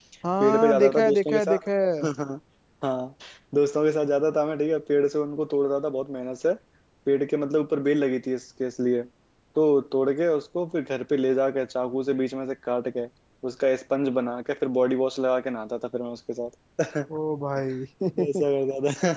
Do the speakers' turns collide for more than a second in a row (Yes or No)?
Yes